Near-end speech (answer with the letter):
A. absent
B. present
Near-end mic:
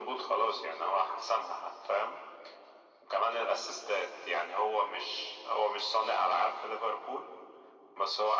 A